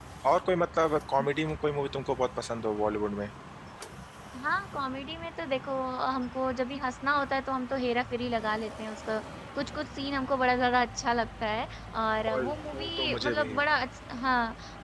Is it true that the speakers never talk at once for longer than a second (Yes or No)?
No